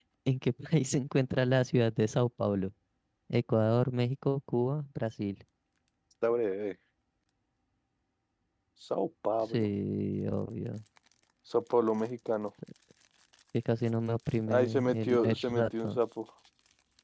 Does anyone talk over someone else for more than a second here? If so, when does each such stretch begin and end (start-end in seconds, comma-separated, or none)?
14.5-16.0